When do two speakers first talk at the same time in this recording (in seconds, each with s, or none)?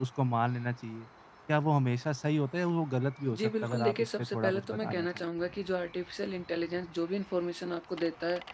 3.3 s